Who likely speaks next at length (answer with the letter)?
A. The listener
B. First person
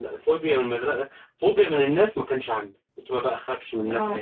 B